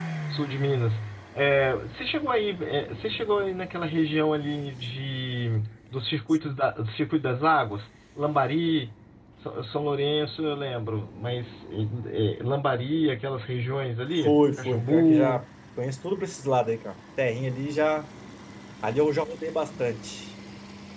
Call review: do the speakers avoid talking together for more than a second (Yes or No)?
No